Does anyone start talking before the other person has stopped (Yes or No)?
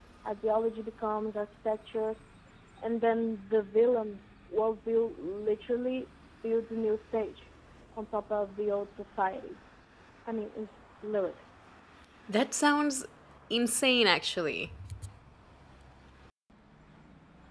No